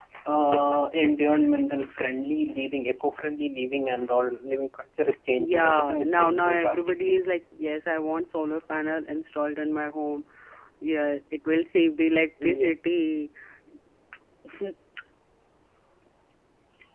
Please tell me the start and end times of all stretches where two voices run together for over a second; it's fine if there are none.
5.3-7.2

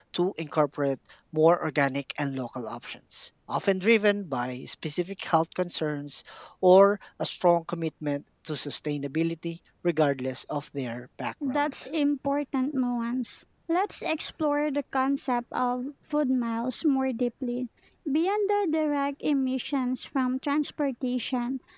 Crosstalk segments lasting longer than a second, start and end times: none

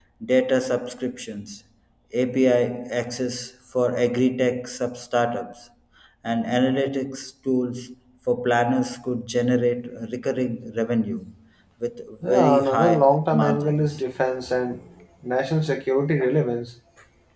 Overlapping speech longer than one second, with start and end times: 12.3-14.0

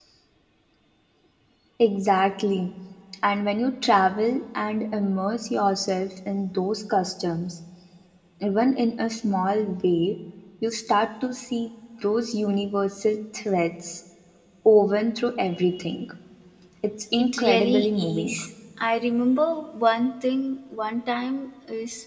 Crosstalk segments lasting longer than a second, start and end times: 17.2-18.4

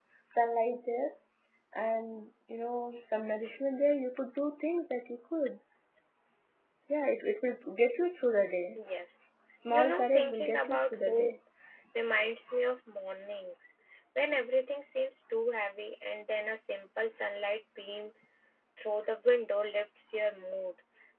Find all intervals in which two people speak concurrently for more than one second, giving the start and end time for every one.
9.7-11.3

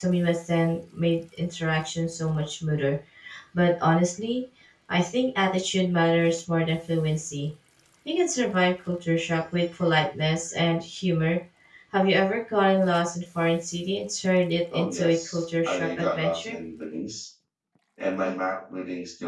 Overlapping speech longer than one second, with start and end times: 14.7-16.6

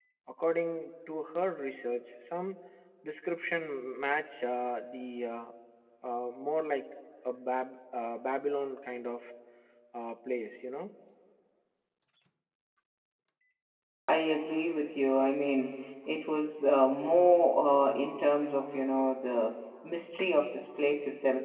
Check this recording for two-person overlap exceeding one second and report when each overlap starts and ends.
none

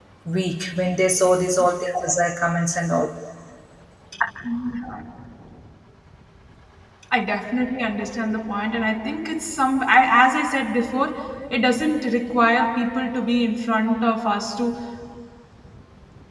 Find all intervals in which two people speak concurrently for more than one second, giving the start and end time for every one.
none

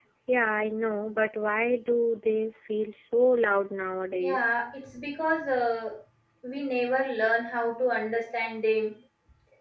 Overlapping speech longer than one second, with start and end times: none

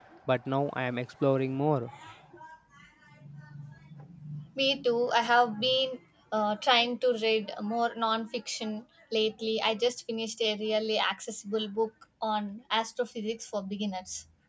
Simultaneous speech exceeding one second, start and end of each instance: none

